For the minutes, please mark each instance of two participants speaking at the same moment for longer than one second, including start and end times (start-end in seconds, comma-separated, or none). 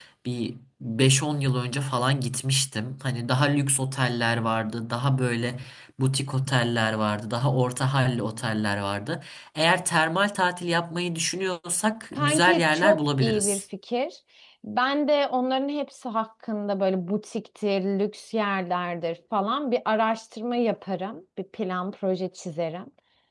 12.1-13.6